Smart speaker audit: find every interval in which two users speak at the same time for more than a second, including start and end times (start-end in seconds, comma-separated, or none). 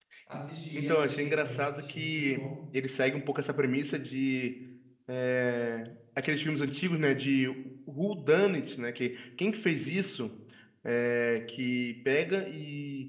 0.8-2.4